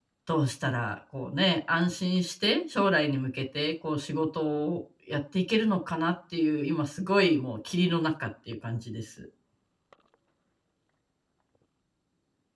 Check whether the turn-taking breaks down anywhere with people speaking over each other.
No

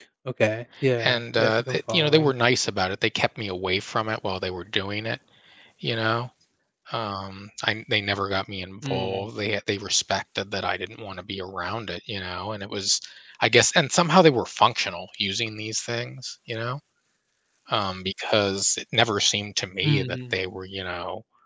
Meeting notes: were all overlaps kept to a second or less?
No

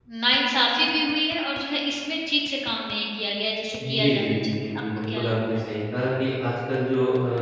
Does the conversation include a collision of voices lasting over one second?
Yes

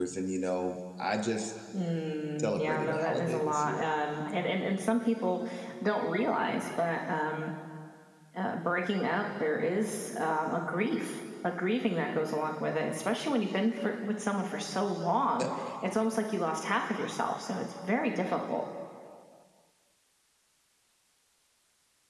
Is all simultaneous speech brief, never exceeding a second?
No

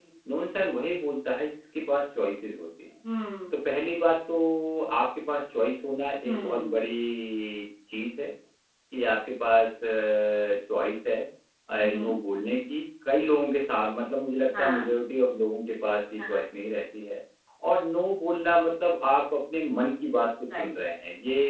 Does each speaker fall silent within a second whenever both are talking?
Yes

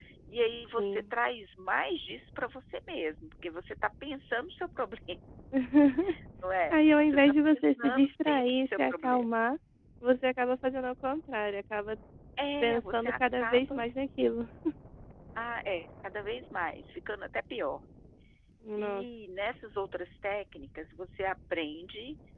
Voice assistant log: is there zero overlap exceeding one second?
No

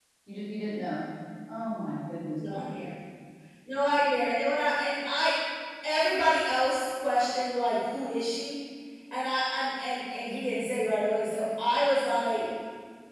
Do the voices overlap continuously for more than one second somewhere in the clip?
No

